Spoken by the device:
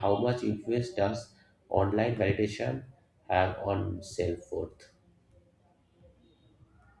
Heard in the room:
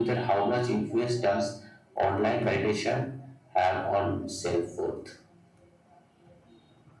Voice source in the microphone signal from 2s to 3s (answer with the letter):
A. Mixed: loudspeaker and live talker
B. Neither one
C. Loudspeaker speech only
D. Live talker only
C